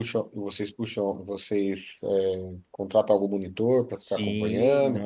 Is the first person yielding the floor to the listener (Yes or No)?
Yes